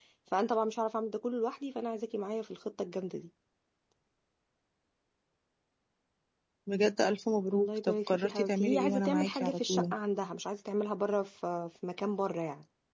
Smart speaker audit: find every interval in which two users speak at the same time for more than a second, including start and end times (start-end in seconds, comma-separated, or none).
7.5-9.9